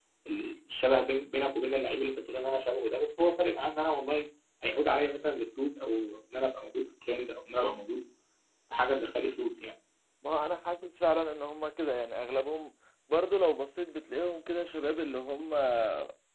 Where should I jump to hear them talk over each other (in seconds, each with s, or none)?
none